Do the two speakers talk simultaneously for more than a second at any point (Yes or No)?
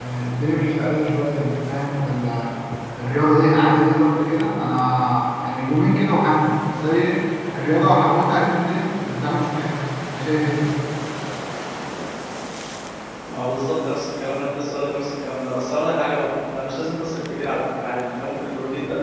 No